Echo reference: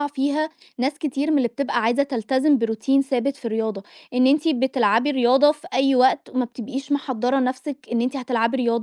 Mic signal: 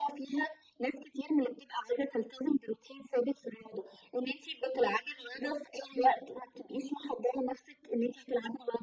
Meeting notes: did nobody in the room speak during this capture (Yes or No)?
Yes